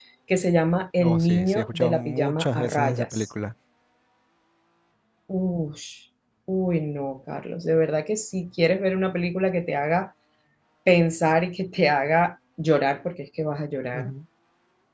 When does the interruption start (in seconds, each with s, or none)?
1.0 s